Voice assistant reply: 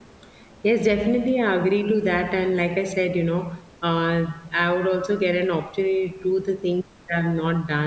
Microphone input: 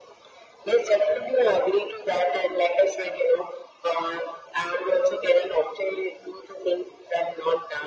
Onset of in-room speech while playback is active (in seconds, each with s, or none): none